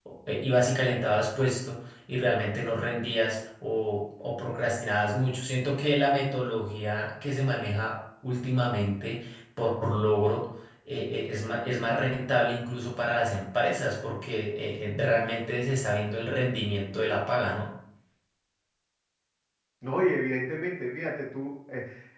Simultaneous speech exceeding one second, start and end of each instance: none

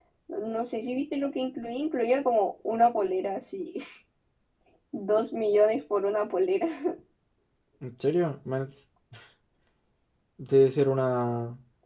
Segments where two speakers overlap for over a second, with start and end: none

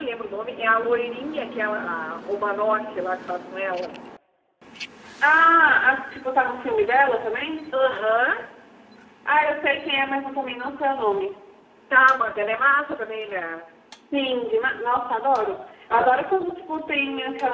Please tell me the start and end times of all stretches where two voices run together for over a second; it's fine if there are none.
none

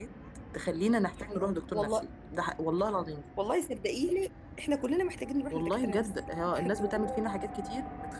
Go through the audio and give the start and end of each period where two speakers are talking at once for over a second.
5.5-7.2

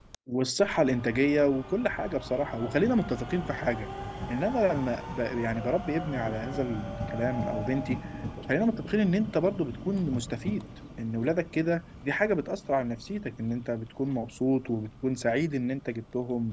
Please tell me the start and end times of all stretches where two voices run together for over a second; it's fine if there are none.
none

